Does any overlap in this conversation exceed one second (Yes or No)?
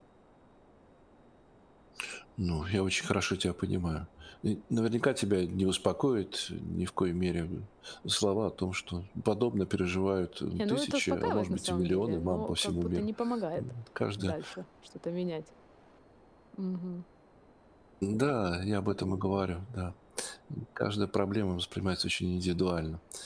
Yes